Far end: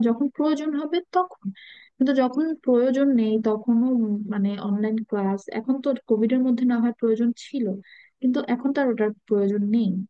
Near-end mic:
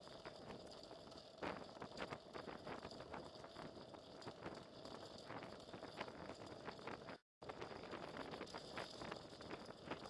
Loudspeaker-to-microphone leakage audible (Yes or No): No